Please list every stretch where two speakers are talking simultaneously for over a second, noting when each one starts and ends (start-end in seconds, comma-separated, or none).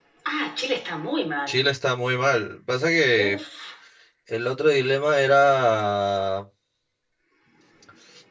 none